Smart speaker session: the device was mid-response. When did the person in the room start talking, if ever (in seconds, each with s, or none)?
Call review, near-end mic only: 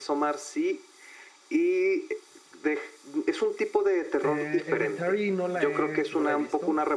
4.2 s